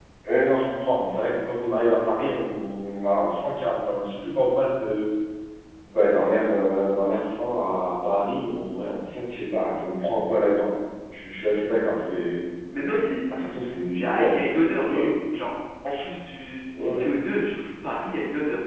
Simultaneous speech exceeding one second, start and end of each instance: 13.9-15.4

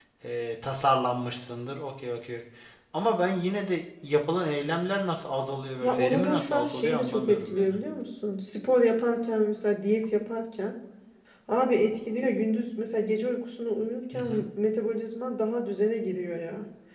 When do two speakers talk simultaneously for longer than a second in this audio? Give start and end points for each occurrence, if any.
5.8-7.7

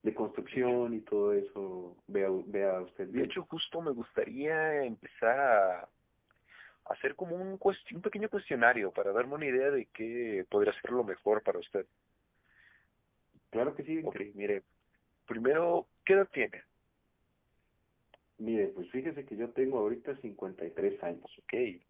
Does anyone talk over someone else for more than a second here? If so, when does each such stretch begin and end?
none

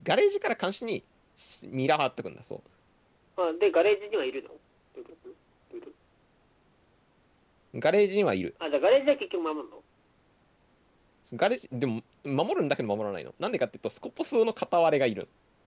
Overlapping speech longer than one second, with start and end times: none

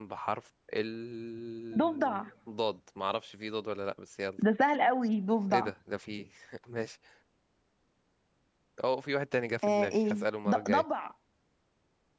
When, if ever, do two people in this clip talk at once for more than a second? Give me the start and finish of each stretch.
9.6-10.8

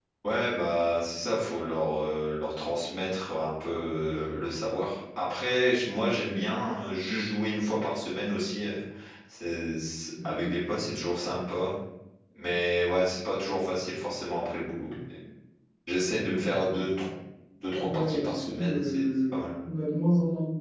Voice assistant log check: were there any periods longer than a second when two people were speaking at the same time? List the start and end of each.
17.8-19.4

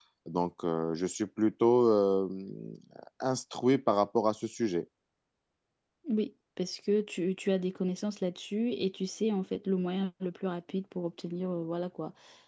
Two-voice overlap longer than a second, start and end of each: none

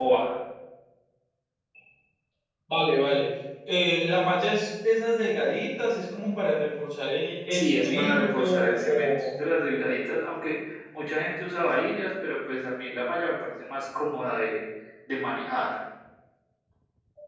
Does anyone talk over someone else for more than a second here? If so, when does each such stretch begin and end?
7.5-9.3

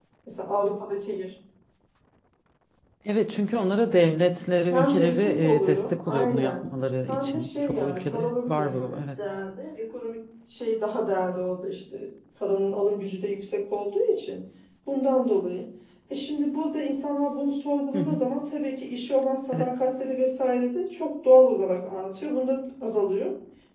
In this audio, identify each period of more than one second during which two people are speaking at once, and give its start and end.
4.7-6.6, 7.1-9.0

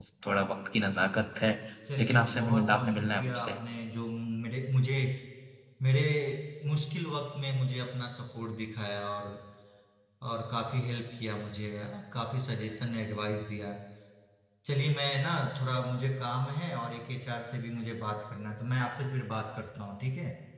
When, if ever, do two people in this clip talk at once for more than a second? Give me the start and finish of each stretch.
2.0-3.6

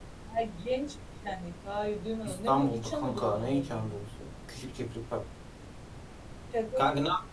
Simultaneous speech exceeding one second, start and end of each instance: 2.2-4.0

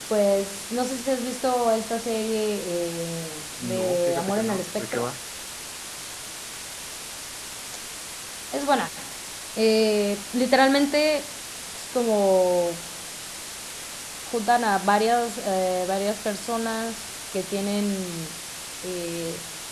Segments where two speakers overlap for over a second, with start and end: 3.6-5.0

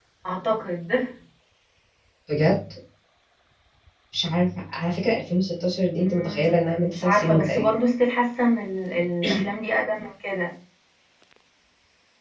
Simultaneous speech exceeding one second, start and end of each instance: 6.0-7.7

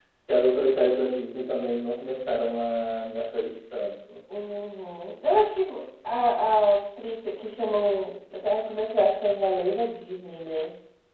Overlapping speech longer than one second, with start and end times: none

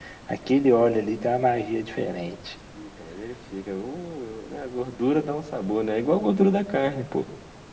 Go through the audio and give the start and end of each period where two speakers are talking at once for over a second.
none

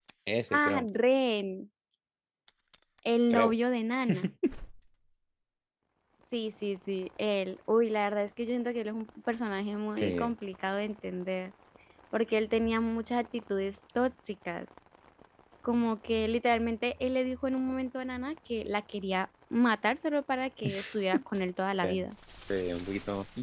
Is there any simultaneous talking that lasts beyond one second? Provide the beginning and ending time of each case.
none

